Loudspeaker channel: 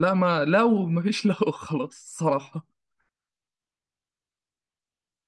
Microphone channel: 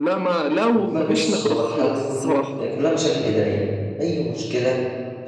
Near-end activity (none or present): present